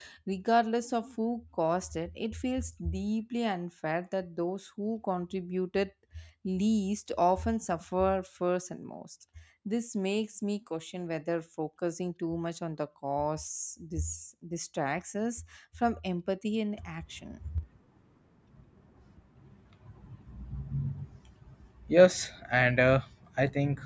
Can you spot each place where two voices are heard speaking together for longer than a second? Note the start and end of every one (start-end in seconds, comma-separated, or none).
none